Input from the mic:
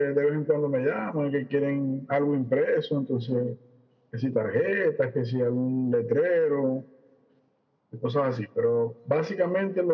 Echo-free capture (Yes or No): No